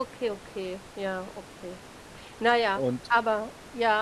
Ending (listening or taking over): listening